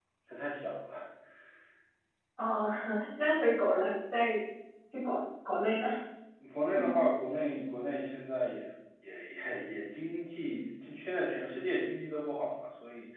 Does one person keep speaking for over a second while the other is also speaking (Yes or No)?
No